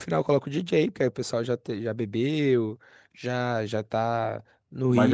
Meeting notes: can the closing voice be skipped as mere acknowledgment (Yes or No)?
No